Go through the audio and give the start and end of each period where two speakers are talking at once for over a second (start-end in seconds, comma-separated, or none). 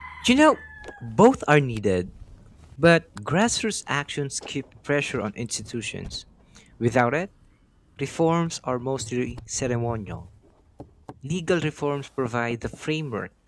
none